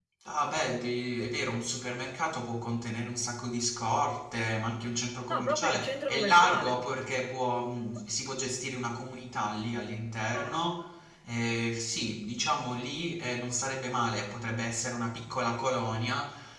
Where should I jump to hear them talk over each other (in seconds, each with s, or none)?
5.3 s